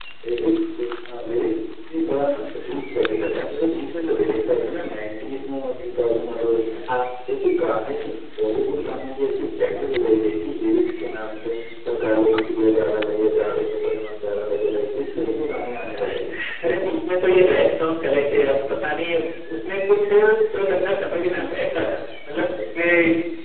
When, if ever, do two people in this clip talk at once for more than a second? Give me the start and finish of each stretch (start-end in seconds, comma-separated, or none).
none